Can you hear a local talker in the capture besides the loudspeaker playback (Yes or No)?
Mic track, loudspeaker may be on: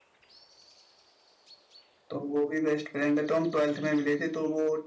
Yes